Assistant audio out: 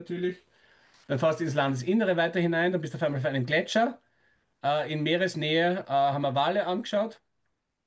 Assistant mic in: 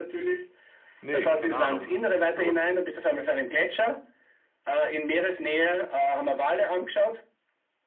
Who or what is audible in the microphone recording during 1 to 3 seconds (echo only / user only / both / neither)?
both